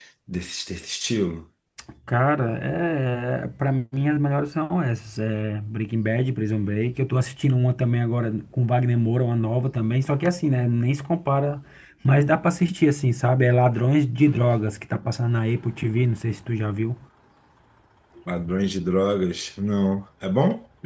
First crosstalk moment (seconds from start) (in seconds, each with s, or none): none